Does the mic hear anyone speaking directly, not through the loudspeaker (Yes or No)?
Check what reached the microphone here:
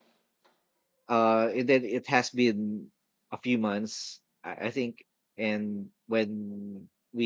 Yes